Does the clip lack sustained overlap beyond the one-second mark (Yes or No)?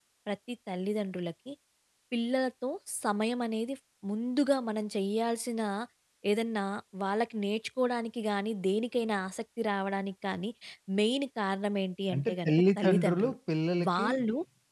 No